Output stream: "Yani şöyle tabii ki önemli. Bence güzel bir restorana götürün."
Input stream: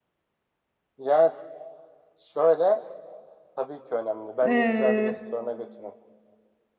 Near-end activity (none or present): present